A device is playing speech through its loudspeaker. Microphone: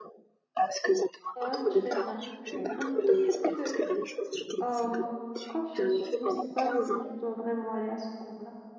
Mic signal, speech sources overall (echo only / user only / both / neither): both